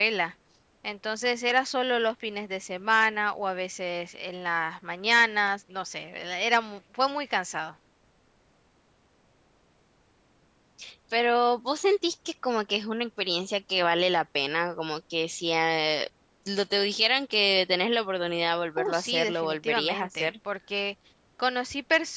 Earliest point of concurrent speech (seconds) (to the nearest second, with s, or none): 19 s